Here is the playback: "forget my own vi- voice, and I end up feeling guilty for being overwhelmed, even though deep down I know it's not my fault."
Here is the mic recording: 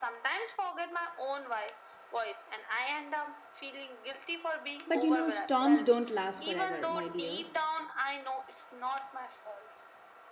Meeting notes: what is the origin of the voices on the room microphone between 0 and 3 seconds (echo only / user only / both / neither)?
echo only